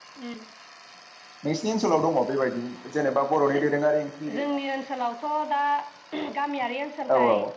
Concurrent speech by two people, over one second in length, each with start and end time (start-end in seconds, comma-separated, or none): none